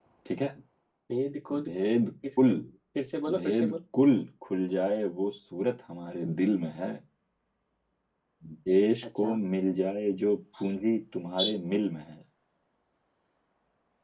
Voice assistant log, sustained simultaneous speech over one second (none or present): none